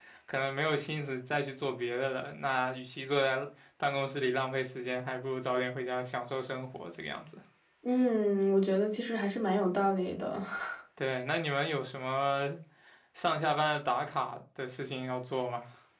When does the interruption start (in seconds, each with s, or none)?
none